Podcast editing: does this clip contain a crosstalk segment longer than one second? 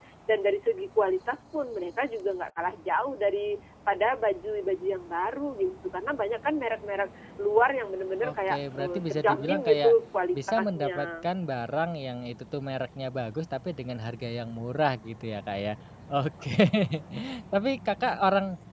Yes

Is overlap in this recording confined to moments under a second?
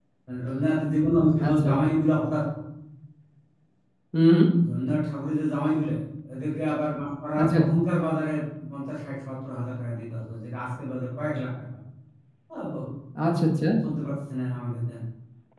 Yes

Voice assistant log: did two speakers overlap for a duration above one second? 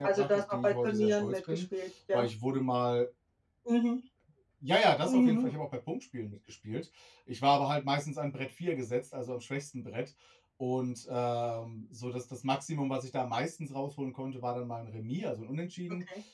Yes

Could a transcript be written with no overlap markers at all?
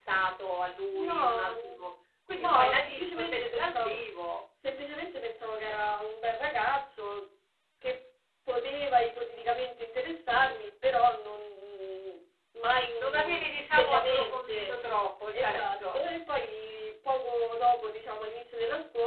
No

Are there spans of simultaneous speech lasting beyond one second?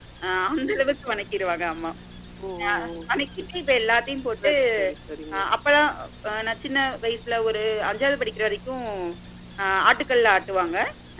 No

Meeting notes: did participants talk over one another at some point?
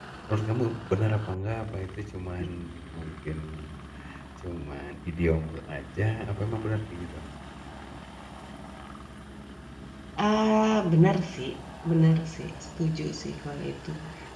No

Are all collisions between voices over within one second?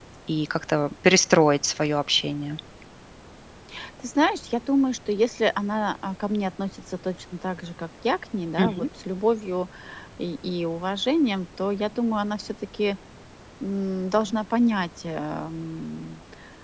Yes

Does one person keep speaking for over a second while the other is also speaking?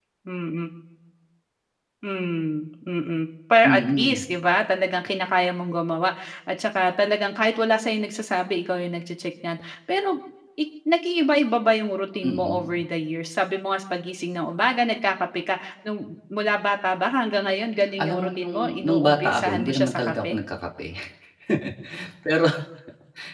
Yes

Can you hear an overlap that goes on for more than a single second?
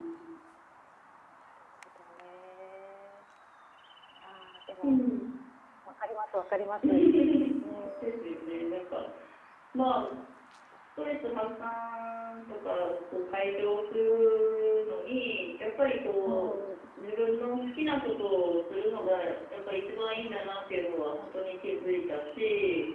No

